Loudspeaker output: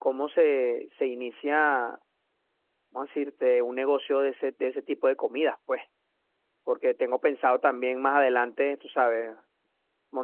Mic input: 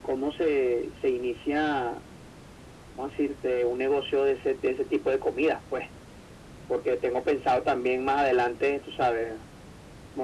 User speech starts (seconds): none

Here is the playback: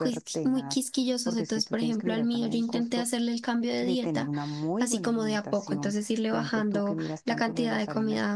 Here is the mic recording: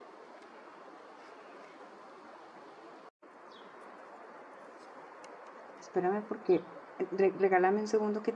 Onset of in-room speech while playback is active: 6 s

